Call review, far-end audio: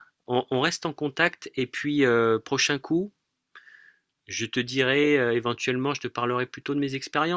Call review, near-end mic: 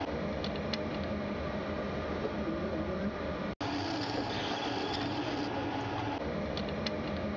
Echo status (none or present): none